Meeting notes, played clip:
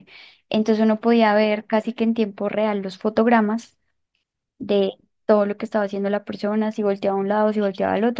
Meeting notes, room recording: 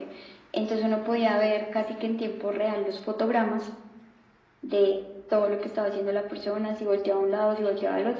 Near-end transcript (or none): none